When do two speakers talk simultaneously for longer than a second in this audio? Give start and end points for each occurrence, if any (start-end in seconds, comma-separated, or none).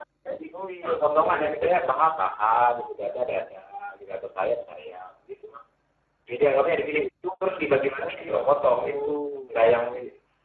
0.6-2.1